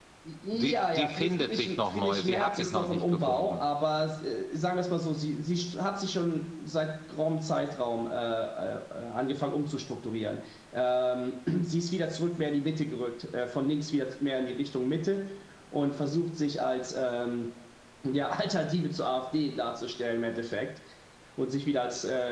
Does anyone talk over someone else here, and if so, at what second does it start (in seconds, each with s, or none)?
0.5 s